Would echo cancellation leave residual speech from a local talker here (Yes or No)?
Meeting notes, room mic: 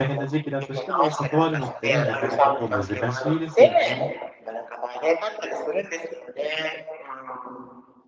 Yes